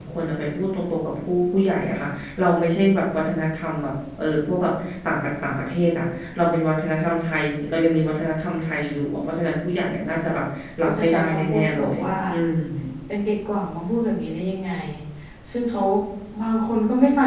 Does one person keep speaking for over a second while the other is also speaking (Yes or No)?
Yes